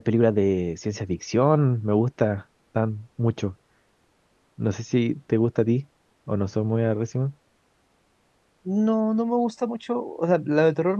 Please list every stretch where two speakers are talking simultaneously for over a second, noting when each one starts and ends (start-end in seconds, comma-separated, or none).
none